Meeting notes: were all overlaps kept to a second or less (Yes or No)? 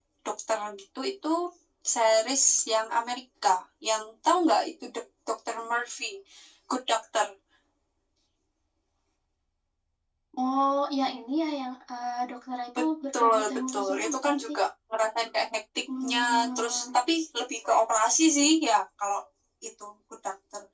No